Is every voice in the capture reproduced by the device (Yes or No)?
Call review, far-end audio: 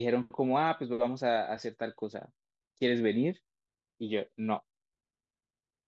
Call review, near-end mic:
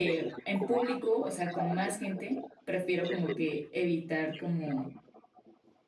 No